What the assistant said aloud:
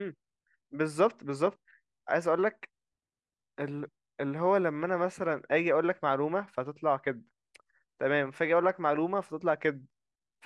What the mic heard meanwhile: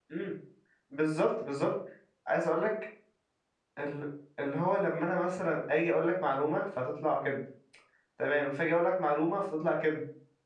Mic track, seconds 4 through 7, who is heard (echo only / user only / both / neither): echo only